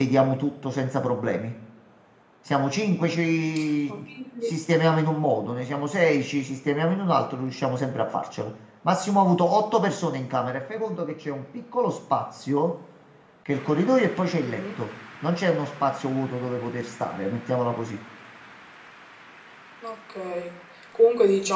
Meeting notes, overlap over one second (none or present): none